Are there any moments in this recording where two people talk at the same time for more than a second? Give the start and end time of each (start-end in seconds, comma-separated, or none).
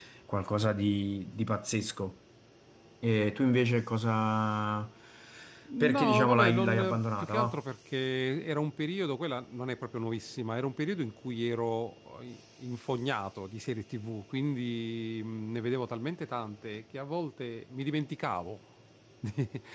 5.8-7.6